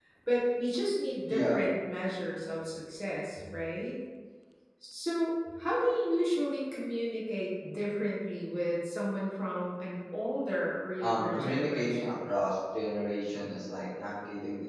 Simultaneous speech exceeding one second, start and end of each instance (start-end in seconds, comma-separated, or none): 11.0-12.2